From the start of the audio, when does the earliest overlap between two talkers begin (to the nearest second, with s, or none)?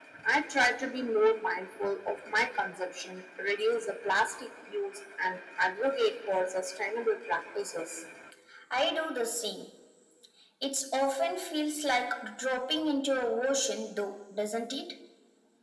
none